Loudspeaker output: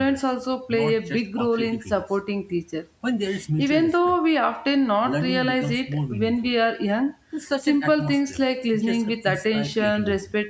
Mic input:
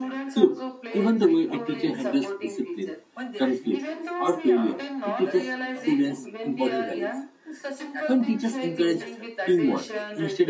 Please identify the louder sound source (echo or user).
user